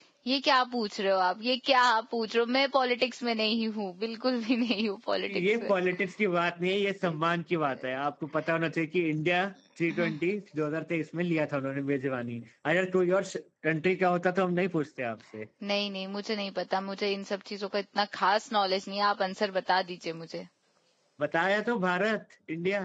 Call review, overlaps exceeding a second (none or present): none